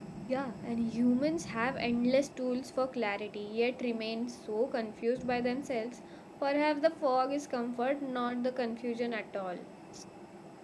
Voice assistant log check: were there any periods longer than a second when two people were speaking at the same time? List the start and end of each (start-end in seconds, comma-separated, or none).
none